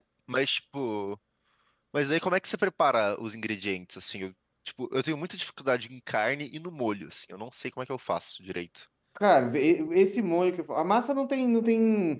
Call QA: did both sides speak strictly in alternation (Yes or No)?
Yes